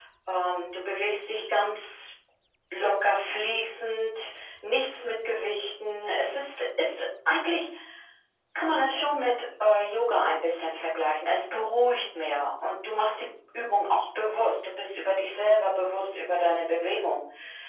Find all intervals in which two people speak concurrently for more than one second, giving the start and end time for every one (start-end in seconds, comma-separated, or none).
none